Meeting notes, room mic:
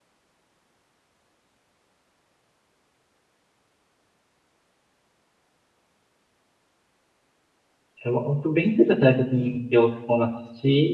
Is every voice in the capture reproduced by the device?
No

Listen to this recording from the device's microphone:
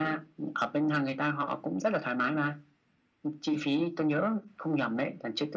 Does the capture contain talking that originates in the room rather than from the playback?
No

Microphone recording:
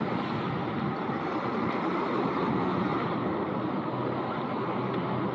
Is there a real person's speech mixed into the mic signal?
No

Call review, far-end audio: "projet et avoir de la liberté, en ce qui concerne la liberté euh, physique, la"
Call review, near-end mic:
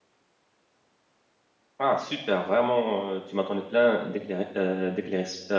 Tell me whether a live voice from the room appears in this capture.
Yes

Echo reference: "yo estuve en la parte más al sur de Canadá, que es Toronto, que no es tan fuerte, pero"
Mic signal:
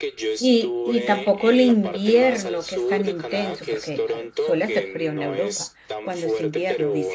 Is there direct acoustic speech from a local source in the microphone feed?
Yes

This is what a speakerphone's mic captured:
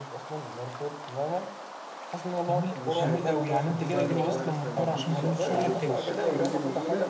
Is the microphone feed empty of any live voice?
No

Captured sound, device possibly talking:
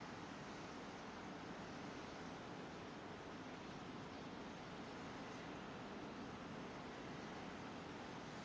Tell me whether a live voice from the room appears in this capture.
No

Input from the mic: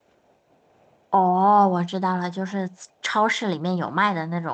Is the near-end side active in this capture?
Yes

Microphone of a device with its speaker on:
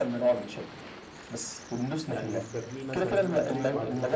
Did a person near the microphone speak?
Yes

